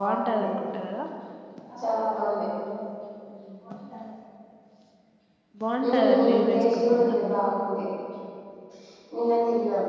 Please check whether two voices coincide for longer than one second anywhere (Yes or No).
Yes